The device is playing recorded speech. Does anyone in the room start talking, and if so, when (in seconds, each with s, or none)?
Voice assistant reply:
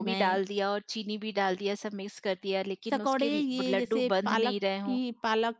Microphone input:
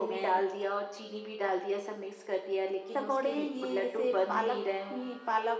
none